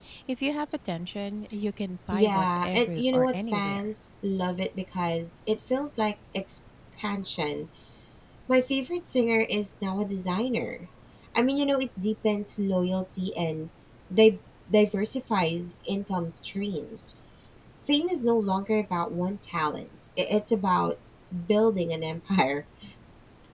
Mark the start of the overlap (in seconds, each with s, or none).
2.1 s